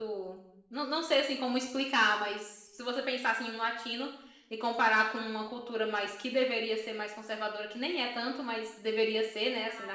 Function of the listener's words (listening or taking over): listening